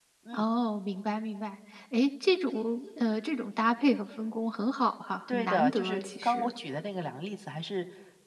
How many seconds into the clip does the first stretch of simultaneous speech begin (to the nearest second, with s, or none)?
5 s